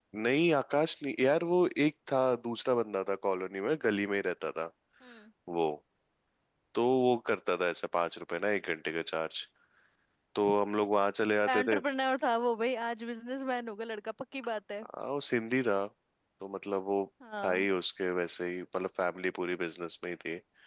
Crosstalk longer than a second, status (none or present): none